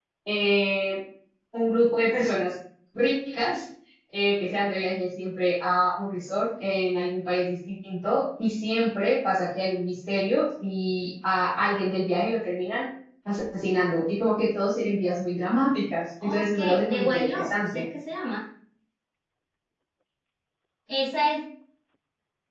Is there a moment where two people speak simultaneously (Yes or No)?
Yes